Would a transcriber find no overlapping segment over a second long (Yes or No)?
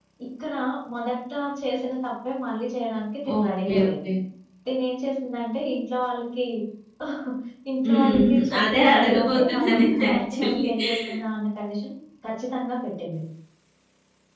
No